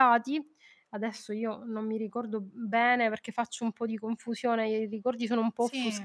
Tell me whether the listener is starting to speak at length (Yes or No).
No